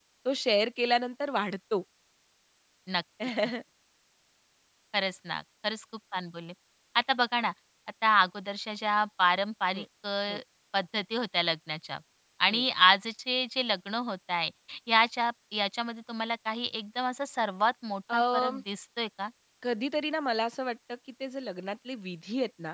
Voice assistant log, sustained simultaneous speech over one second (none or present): none